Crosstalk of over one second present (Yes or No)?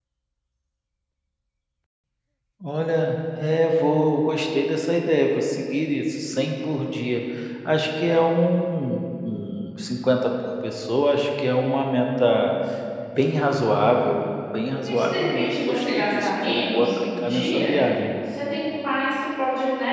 Yes